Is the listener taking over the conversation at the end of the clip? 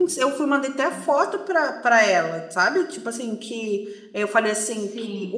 No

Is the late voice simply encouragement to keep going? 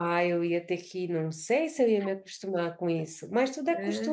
No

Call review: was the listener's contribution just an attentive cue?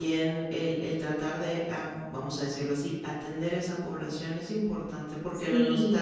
Yes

